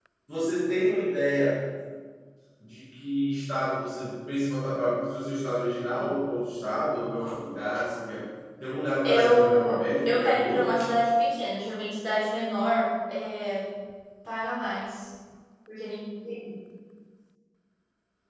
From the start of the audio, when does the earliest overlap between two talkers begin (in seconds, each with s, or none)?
9.0 s